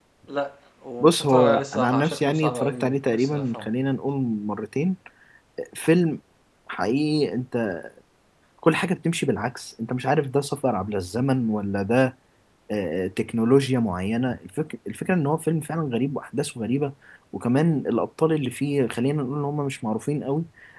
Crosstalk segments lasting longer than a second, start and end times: 1.0-3.7

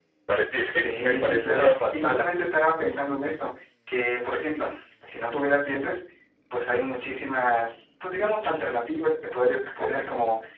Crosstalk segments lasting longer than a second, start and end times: 0.8-2.2

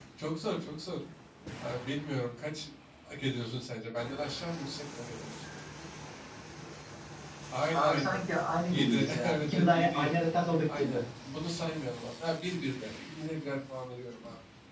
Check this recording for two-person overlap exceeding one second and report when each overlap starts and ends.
8.7-10.1

